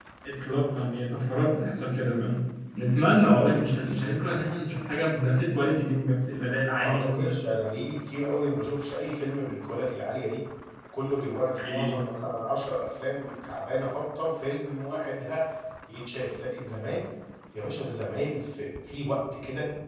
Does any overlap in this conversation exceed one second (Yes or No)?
No